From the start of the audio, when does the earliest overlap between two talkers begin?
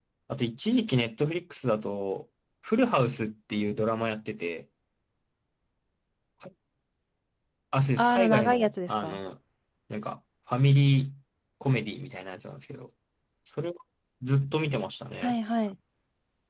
8 s

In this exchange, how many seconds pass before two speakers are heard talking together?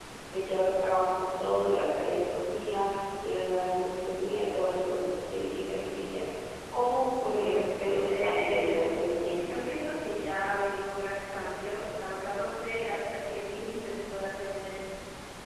7 s

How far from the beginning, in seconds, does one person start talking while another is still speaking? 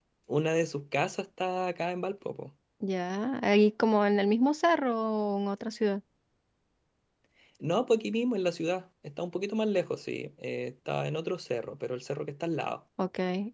none

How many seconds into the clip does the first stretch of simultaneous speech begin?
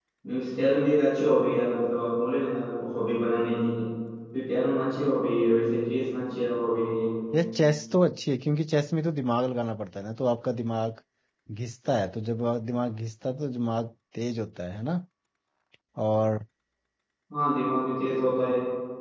none

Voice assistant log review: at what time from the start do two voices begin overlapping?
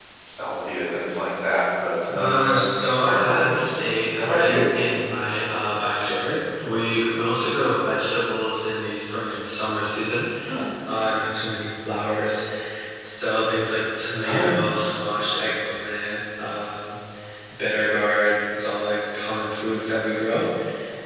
2 s

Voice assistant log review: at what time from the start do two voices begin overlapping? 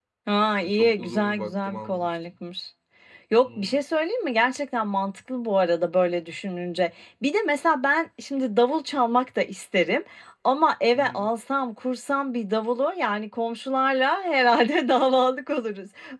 1 s

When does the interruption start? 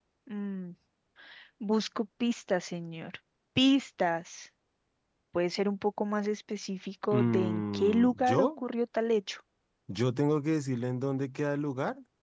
7 s

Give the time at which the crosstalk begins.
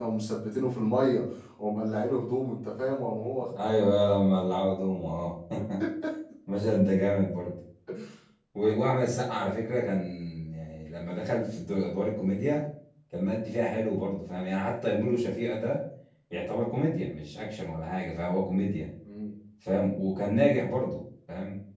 none

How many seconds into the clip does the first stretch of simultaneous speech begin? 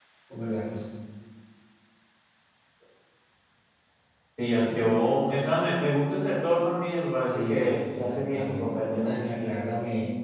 7 s

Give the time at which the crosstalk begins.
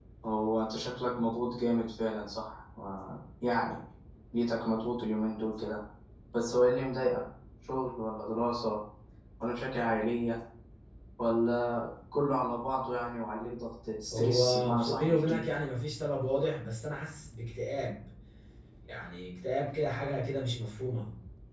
14 s

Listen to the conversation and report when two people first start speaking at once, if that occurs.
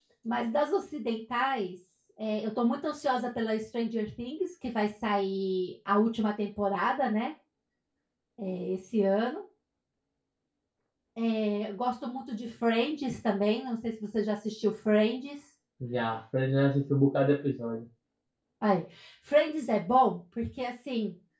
none

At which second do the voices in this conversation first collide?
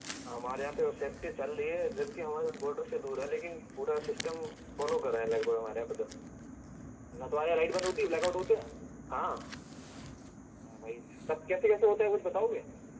none

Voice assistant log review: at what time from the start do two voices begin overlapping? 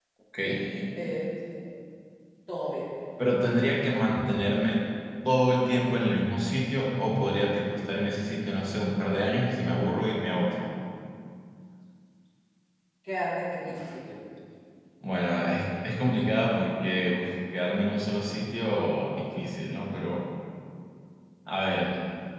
none

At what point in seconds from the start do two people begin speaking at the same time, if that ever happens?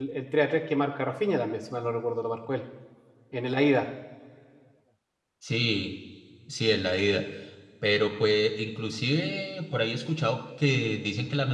none

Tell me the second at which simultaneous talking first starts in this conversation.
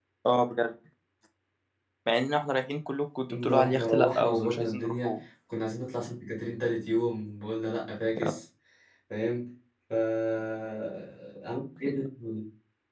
3 s

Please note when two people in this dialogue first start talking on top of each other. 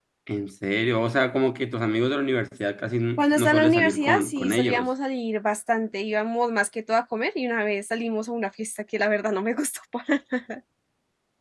3 s

